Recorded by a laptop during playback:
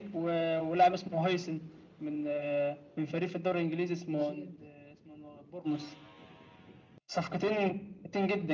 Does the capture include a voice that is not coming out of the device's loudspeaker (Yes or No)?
Yes